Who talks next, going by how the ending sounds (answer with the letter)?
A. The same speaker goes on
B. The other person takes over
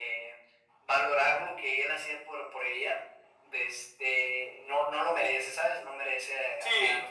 B